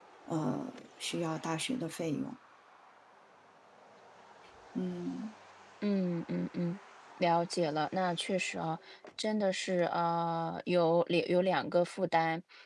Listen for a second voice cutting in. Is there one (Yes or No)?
No